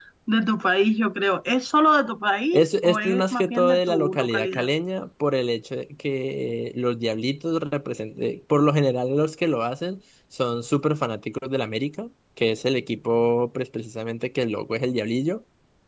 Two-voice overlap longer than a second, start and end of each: 2.5-4.7

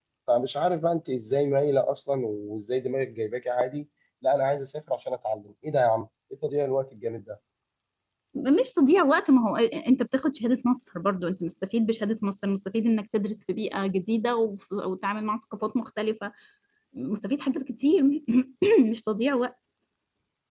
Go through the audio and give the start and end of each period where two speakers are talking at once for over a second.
none

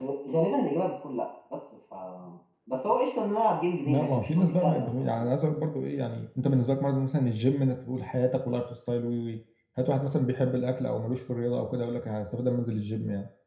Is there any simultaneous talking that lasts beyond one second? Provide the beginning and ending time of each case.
3.8-5.3

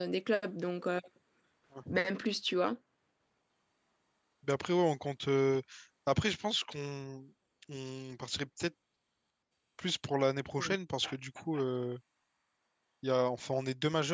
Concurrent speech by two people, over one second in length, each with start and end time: none

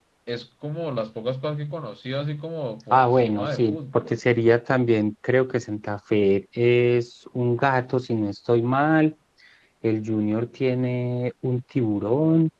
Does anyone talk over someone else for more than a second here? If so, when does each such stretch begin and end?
2.9-4.2

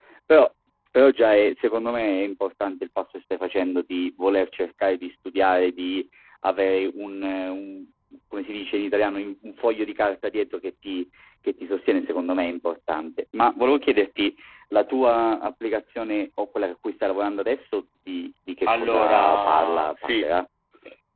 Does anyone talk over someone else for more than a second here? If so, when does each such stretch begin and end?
18.8-20.3

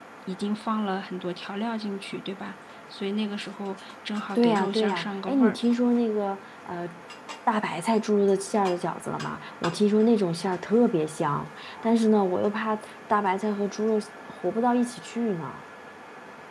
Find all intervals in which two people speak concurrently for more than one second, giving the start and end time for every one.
4.3-5.5

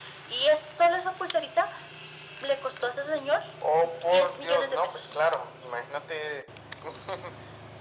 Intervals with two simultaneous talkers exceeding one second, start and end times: 3.8-5.1

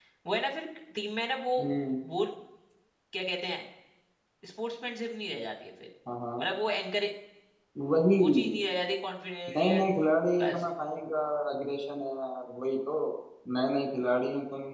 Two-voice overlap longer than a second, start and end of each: none

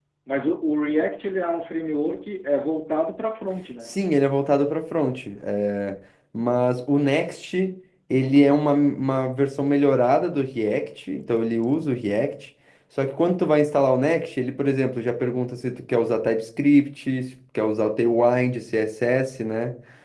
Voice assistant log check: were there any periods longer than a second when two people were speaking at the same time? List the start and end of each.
none

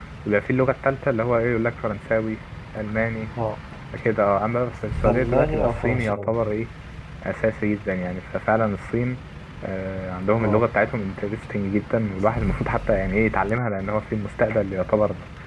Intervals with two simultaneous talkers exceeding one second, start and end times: 5.0-6.3

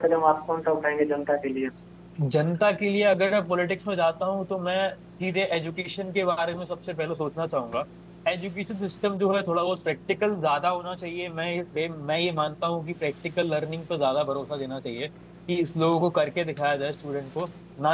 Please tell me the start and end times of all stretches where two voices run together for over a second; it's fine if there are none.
none

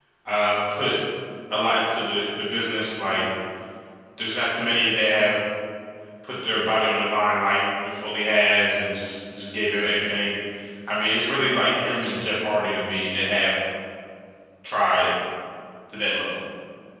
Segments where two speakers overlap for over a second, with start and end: none

